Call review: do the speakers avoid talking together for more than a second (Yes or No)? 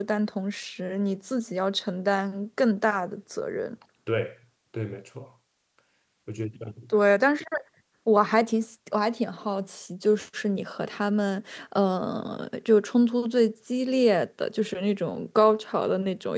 Yes